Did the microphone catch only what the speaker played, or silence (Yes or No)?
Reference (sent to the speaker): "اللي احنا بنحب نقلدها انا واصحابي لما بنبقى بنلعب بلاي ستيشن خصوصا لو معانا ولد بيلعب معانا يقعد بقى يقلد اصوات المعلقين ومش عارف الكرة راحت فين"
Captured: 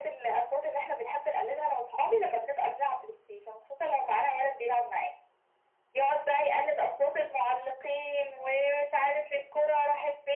Yes